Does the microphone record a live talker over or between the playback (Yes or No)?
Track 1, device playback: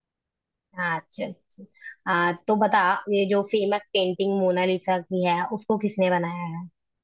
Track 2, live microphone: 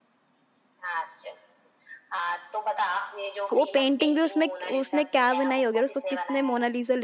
Yes